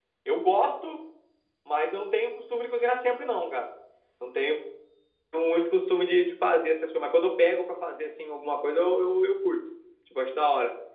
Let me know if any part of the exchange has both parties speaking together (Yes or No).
No